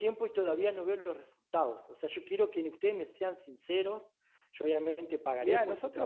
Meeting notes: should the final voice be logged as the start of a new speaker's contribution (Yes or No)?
Yes